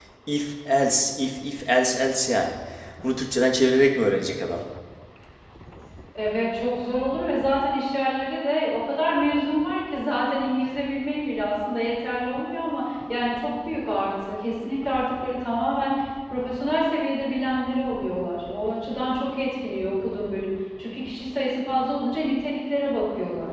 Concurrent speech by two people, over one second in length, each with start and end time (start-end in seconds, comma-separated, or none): none